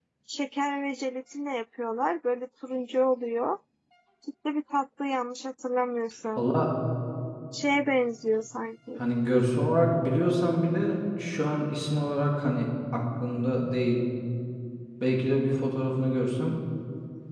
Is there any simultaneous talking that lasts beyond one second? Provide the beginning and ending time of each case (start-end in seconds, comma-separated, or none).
none